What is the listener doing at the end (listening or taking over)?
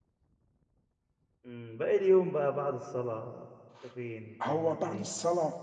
taking over